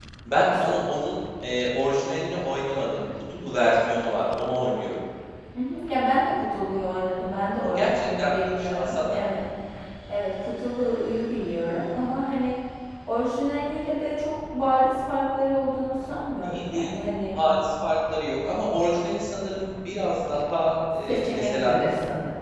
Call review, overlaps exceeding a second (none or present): present